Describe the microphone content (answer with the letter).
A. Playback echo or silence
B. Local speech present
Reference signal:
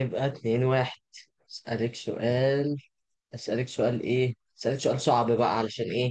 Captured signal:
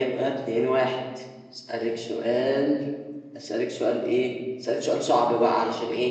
A